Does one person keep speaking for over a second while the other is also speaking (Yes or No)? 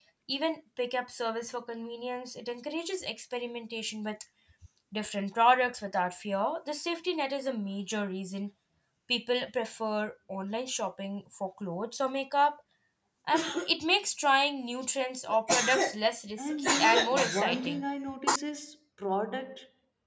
Yes